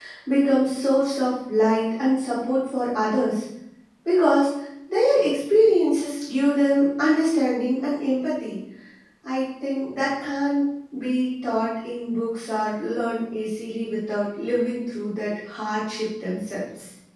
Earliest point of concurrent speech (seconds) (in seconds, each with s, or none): none